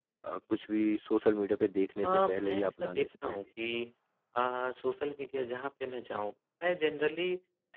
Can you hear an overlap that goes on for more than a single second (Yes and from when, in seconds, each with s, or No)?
Yes, from 2.0 s